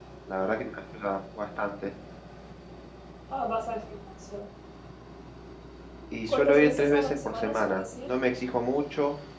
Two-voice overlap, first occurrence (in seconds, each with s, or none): 6.3 s